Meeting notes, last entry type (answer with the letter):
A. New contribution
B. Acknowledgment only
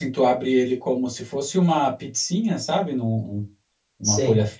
B